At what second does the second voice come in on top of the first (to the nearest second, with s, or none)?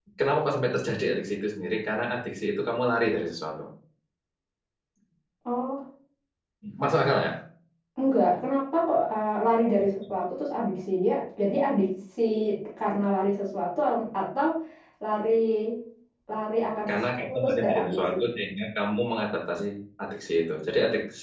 17 s